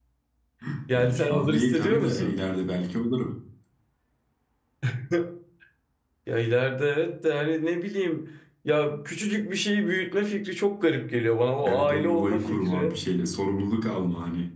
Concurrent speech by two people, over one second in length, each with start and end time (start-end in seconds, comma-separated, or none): 0.9-2.4, 11.7-12.9